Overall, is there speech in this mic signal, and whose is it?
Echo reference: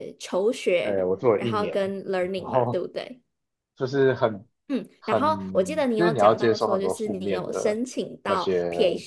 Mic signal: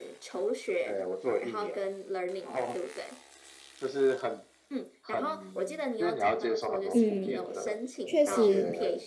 both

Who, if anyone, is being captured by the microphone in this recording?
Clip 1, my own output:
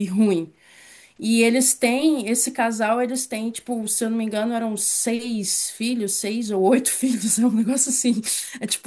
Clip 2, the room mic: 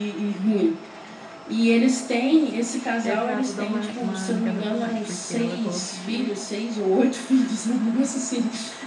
both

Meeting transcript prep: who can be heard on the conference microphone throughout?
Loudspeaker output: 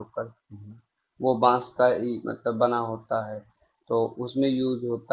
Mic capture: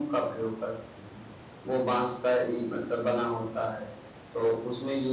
echo only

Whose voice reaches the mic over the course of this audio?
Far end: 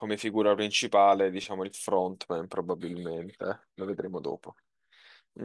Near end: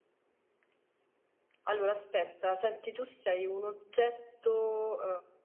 user only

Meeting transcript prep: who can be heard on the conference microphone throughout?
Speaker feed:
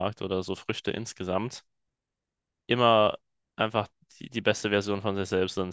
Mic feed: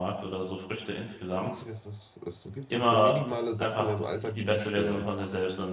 both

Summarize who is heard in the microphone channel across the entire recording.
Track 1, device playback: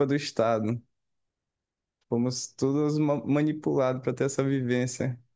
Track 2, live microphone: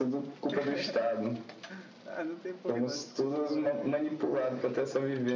both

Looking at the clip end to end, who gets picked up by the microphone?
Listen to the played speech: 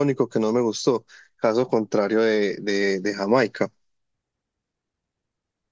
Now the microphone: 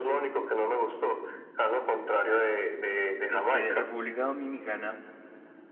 both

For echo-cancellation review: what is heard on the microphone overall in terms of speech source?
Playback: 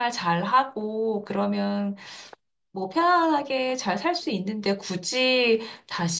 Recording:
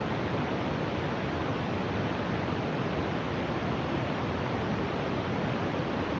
neither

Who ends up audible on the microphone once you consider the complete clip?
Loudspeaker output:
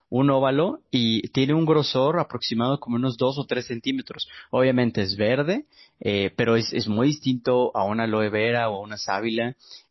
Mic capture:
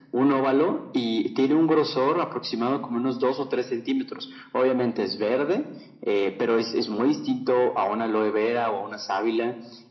echo only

